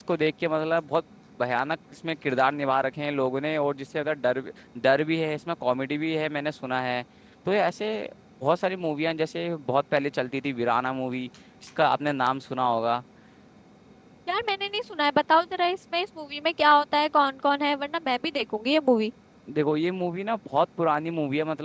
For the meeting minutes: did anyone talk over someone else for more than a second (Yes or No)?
No